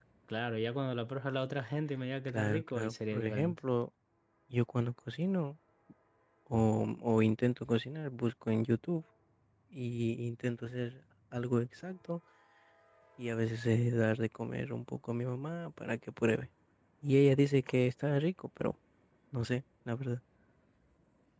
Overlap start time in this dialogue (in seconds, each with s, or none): 2.3 s